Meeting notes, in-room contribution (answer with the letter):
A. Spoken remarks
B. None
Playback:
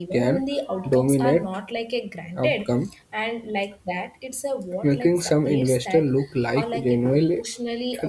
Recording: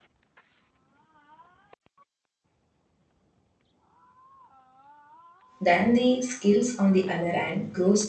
A